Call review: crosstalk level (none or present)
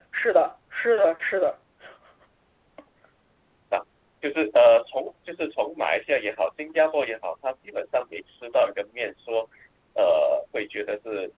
none